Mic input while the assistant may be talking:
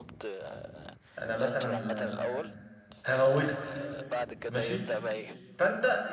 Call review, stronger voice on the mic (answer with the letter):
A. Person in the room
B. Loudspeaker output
A